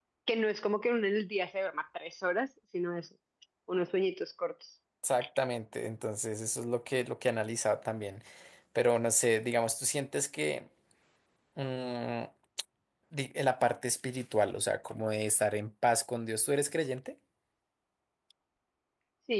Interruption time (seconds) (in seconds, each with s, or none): none